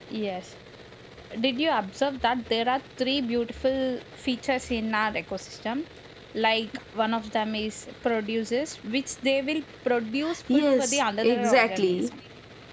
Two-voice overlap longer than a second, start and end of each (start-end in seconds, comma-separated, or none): 10.5-12.1